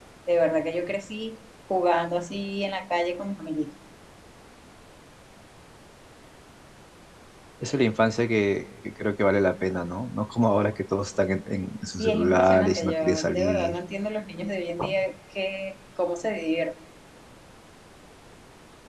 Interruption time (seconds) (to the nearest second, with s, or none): 12 s